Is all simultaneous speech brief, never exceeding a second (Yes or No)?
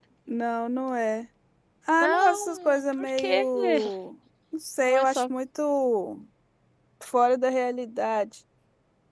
No